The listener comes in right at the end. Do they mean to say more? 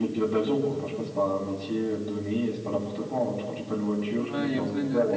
Yes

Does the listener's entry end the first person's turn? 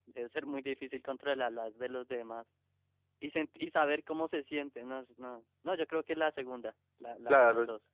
Yes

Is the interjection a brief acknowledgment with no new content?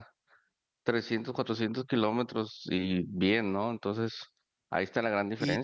No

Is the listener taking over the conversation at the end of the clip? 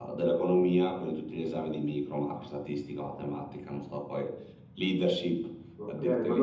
Yes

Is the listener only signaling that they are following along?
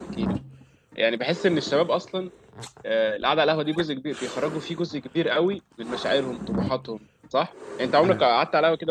Yes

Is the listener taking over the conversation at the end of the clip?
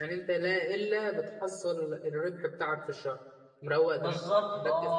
Yes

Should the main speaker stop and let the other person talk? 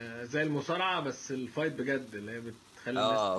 Yes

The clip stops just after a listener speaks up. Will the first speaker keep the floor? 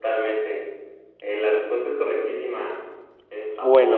No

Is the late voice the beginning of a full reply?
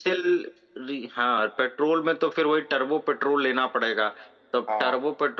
No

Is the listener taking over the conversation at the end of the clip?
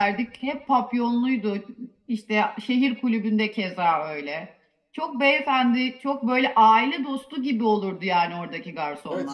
Yes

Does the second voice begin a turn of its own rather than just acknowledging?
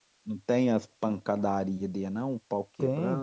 Yes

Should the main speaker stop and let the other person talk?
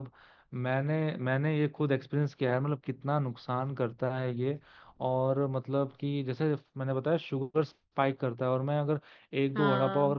No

